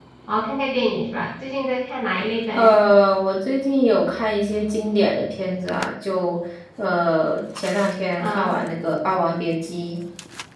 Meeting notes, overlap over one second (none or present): none